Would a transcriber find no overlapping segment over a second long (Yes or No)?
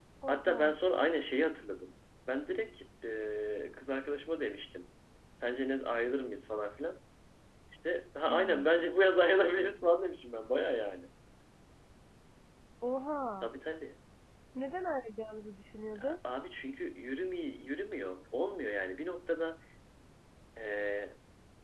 Yes